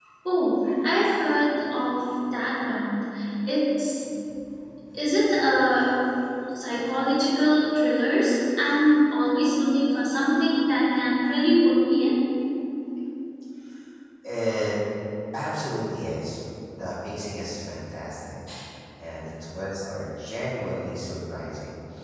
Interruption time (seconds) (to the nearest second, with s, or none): none